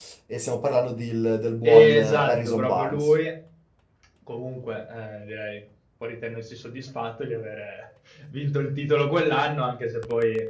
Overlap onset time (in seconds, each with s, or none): 1.6 s